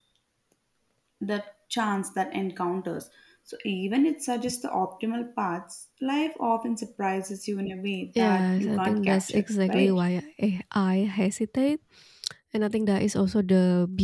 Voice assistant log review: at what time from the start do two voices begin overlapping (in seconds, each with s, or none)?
8.2 s